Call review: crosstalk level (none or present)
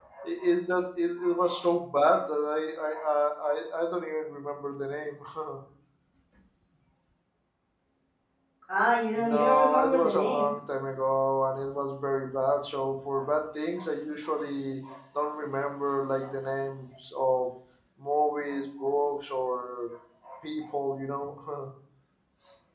present